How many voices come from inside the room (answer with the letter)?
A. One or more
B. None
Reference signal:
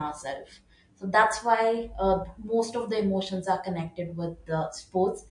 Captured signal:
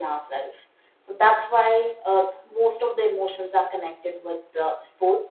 B